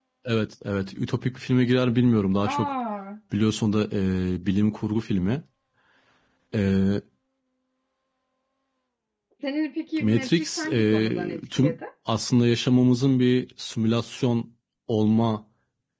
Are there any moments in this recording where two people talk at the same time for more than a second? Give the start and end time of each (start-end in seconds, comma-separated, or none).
10.0-11.8